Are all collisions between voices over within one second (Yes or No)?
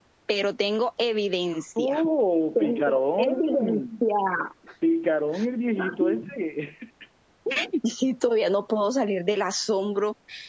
No